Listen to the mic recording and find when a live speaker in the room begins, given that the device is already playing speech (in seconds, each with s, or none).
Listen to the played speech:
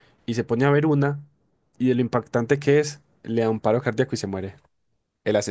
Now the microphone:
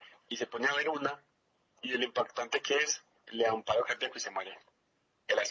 none